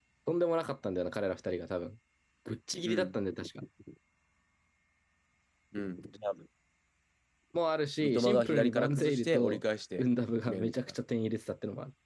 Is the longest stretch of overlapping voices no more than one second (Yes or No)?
No